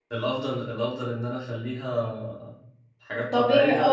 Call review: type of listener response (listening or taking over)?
taking over